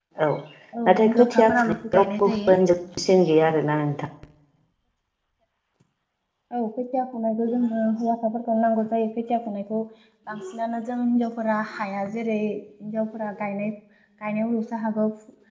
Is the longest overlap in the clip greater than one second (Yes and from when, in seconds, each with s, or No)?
Yes, from 0.9 s